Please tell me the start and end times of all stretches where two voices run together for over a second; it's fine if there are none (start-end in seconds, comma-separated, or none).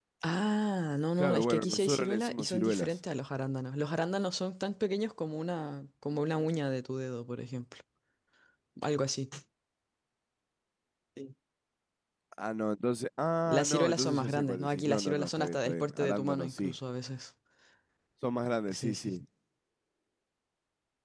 1.2-3.0, 13.5-16.7